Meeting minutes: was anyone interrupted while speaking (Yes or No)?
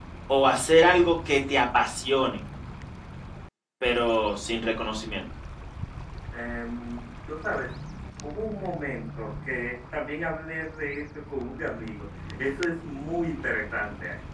No